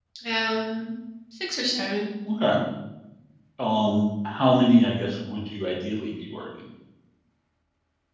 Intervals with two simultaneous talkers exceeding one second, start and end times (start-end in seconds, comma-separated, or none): none